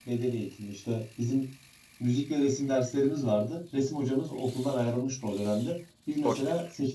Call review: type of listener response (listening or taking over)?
listening